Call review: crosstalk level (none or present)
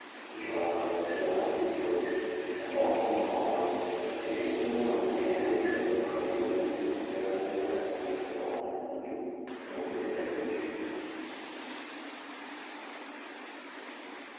present